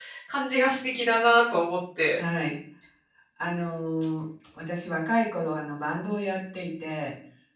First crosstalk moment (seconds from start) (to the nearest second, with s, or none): none